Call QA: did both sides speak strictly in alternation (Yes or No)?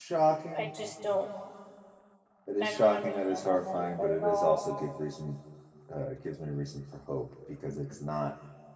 No